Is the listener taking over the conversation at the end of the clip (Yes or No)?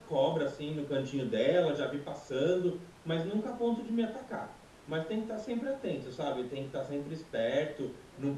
No